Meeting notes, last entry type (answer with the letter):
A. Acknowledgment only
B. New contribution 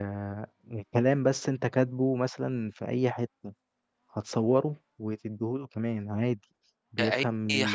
B